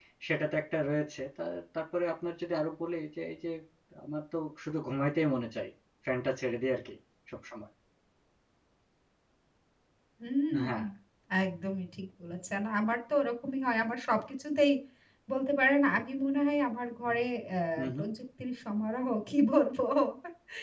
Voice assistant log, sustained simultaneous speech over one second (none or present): none